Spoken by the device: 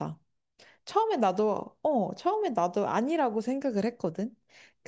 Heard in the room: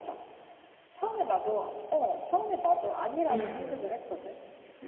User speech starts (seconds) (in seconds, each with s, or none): 3.3 s